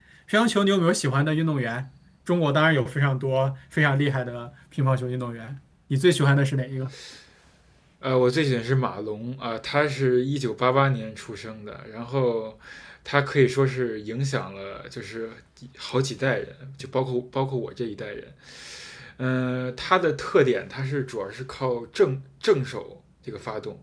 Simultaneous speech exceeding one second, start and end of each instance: none

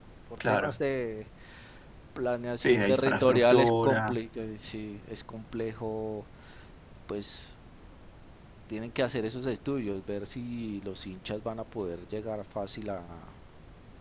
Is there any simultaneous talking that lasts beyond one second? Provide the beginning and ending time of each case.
2.6-4.1

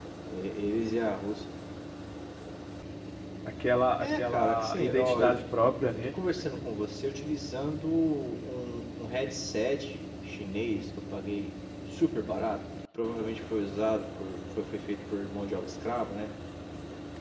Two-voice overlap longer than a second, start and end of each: 4.0-5.3

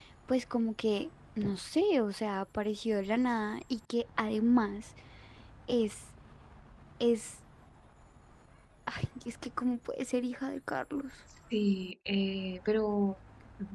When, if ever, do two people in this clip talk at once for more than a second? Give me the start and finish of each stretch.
none

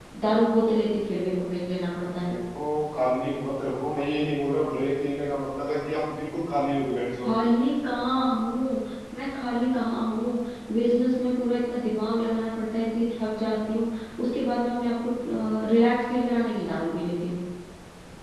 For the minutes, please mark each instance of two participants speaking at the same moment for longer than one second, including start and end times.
none

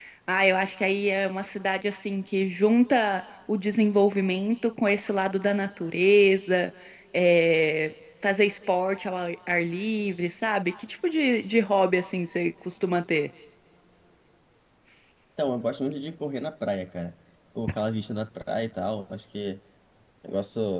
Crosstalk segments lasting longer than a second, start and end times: none

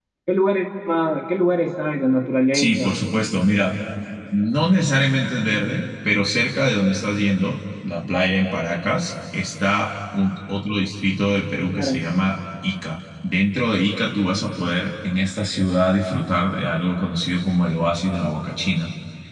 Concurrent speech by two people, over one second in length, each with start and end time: none

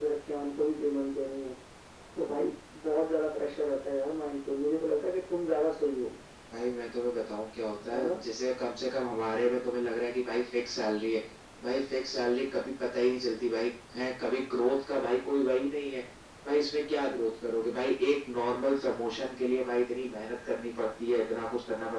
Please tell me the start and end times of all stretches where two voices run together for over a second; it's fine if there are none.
none

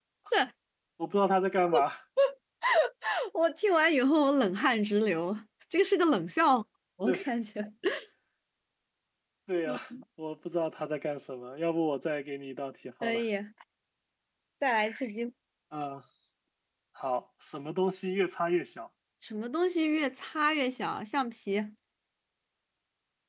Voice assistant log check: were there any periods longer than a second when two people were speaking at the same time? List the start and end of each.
none

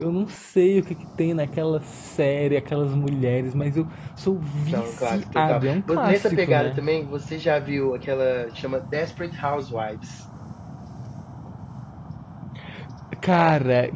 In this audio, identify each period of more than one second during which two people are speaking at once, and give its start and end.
4.7-6.8

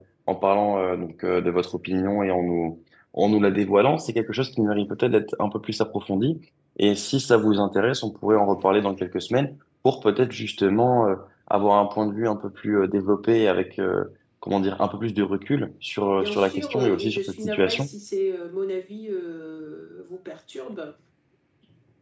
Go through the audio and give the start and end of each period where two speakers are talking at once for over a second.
16.2-17.9

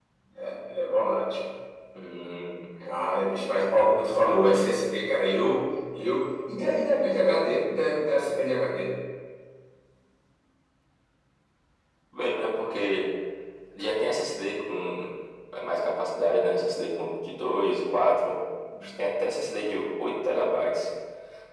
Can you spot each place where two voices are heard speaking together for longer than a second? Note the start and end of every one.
none

